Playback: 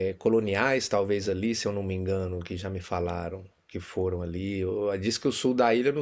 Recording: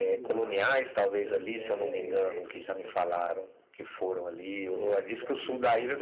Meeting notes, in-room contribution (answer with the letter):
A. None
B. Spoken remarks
B